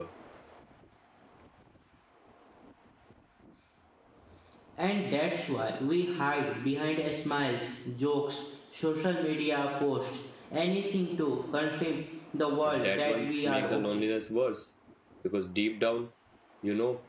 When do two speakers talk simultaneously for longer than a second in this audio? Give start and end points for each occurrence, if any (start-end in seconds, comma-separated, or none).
12.6-14.1